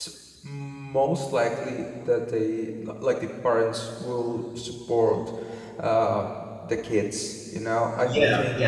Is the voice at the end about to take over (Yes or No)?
Yes